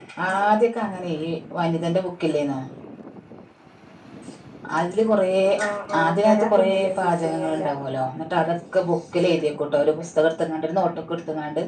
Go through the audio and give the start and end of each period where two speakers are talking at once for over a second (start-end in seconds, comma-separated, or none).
6.1-7.7